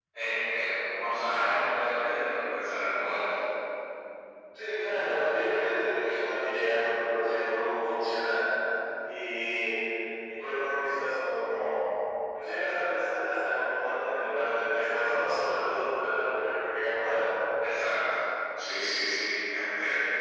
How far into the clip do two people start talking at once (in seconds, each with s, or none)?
none